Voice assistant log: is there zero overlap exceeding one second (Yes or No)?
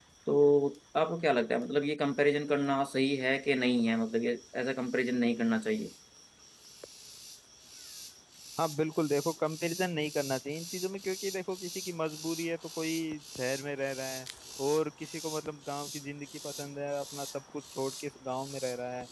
Yes